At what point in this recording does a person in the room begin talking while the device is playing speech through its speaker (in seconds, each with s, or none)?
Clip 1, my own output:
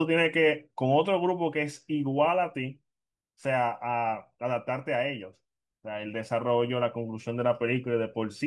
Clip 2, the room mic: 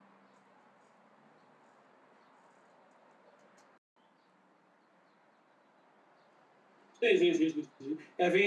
7.0 s